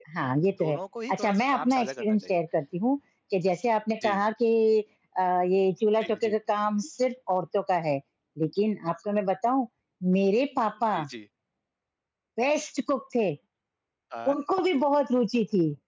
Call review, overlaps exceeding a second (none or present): present